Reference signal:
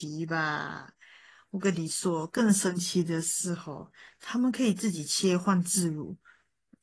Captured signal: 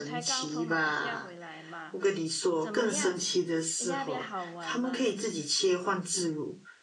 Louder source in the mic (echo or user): echo